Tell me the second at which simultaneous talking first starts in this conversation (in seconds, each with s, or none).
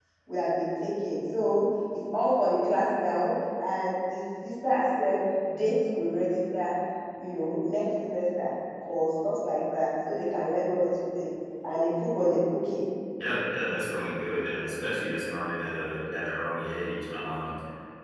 none